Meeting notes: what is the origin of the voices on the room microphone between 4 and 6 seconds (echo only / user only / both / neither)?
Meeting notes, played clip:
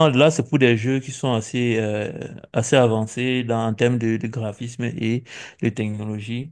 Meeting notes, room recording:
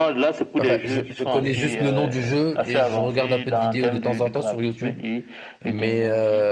both